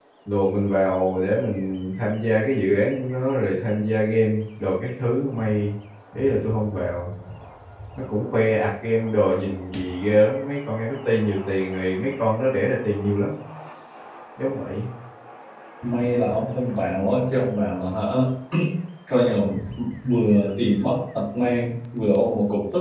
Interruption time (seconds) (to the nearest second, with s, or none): none